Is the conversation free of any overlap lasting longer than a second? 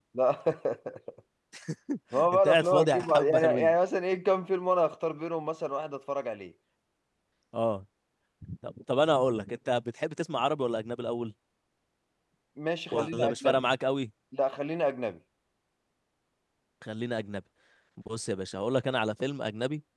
No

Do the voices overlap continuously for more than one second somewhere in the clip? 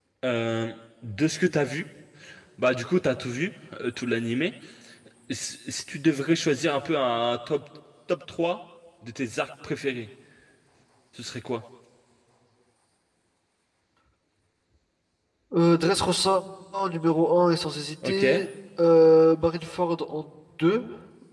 No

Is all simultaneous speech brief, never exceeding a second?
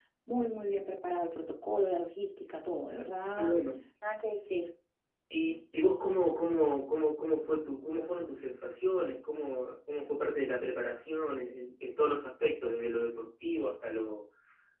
Yes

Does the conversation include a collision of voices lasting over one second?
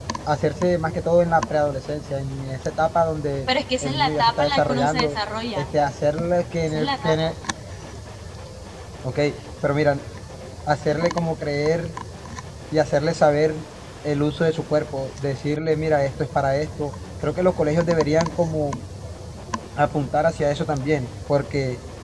Yes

